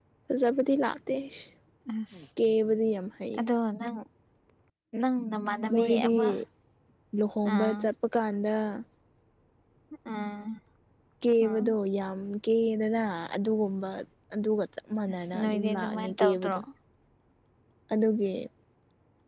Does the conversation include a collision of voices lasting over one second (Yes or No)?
Yes